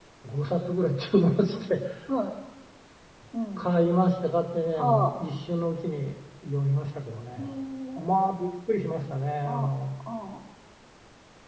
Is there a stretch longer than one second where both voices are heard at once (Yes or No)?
No